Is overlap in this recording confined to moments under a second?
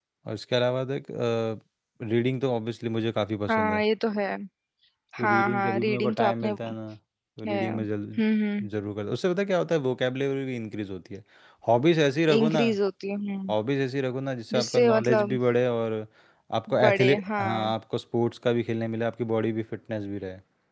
No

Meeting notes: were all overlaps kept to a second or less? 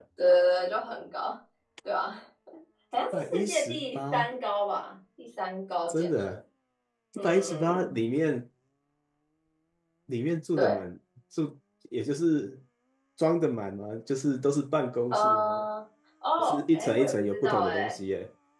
No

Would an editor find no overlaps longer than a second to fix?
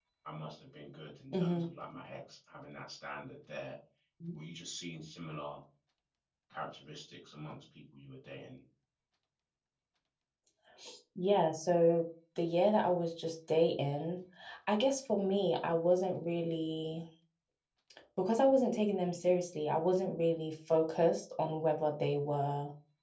Yes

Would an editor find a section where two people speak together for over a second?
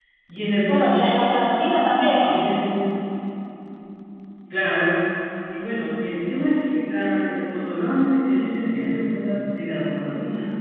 No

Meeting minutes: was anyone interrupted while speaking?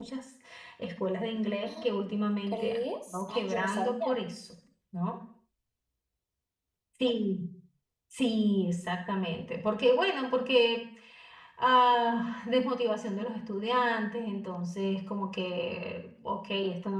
Yes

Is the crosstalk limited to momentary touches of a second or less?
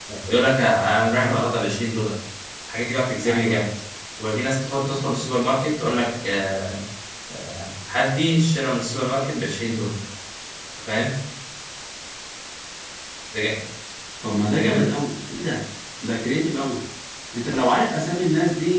Yes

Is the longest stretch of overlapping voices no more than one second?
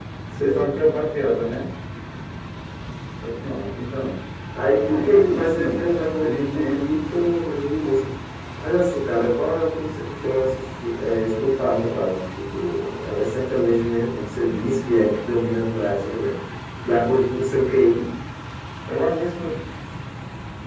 No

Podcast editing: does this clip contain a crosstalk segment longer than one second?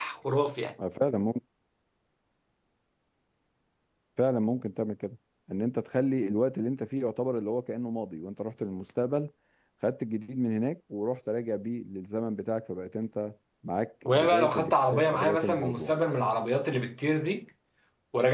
Yes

